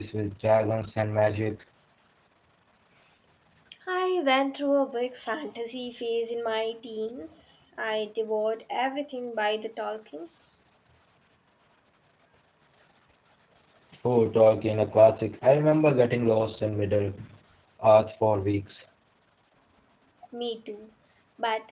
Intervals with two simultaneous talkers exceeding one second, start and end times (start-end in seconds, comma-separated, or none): none